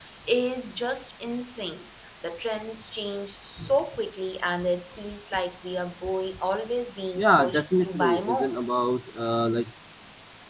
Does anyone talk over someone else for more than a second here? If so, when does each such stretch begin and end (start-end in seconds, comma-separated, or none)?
7.2-8.6